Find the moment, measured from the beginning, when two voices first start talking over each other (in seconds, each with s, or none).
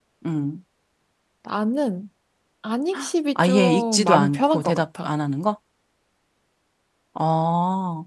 3.4 s